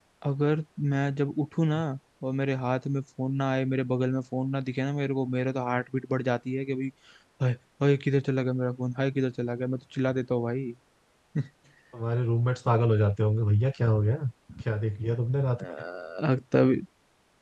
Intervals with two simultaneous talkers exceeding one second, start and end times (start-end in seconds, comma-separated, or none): none